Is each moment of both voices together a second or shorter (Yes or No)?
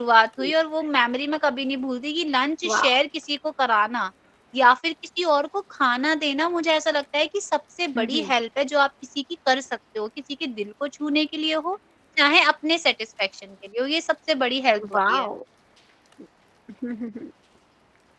Yes